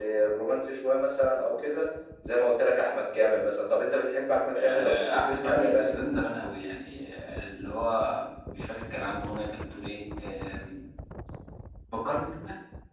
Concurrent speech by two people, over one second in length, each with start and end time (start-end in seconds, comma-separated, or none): 4.6-6.0